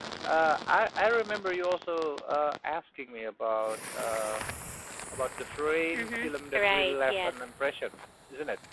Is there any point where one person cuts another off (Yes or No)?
Yes